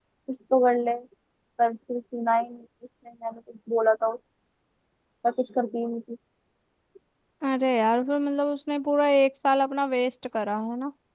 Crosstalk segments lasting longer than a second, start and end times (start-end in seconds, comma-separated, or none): none